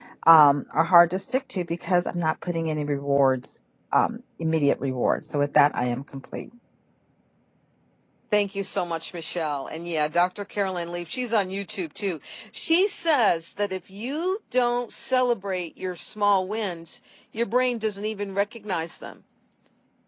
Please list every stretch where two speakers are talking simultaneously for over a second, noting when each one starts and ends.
none

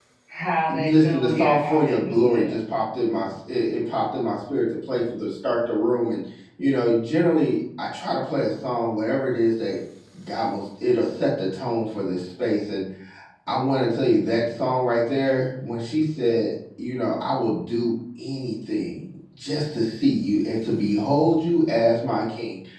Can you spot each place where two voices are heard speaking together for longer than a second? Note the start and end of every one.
0.7-2.5

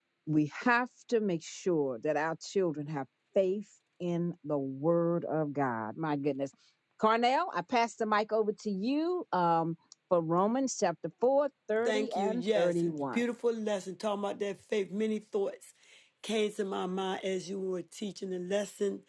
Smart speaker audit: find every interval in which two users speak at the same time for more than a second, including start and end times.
11.8-13.2

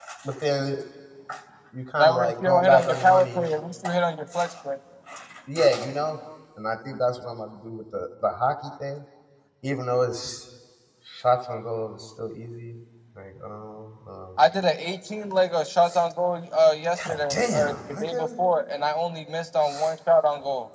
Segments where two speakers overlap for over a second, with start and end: 2.0-3.4, 17.0-18.3

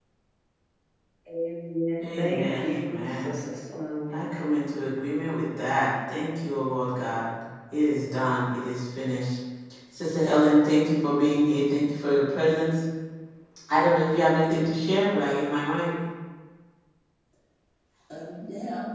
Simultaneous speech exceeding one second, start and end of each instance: 2.0-3.4

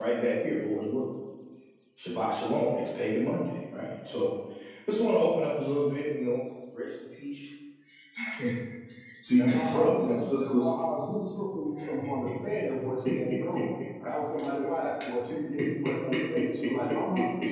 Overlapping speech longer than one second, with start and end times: 9.4-10.6

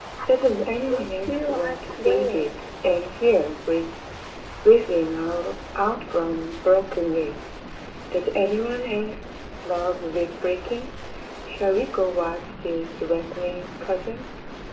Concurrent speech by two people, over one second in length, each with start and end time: 0.9-2.5

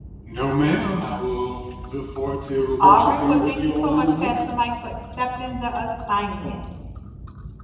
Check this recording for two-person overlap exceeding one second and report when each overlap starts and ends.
2.8-4.5

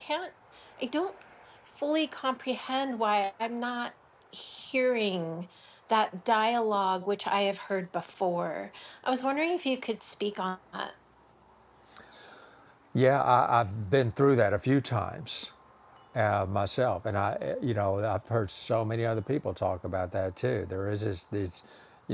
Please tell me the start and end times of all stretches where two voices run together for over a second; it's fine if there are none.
none

